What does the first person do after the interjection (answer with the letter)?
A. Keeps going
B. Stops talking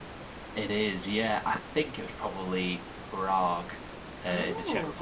A